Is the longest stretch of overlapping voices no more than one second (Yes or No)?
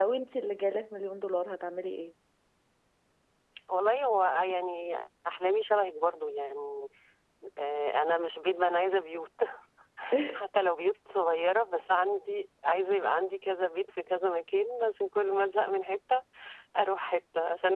Yes